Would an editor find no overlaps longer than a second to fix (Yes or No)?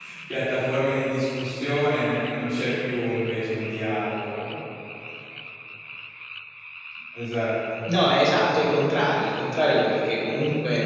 Yes